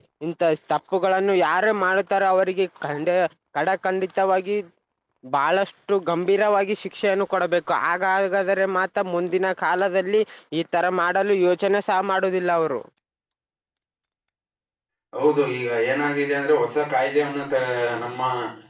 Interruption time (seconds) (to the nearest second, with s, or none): none